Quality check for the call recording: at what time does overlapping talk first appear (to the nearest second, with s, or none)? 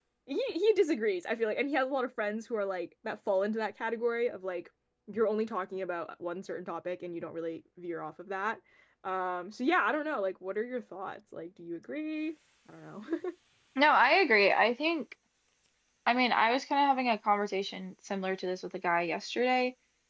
none